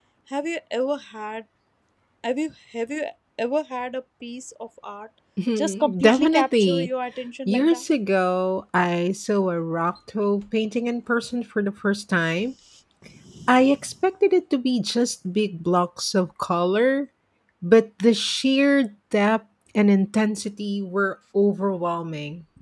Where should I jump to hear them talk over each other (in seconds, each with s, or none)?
5.6 s